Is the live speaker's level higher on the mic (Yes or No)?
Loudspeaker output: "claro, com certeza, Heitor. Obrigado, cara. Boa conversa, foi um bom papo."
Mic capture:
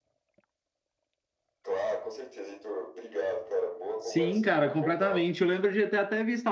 Yes